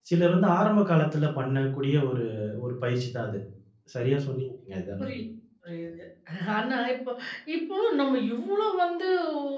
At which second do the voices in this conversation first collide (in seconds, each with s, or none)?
none